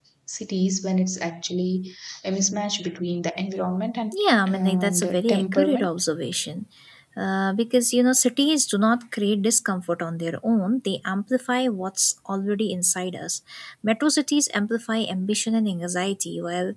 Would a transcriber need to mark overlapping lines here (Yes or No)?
Yes